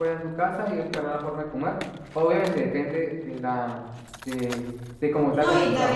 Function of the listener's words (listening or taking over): taking over